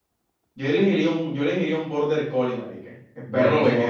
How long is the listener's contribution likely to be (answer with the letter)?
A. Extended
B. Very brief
A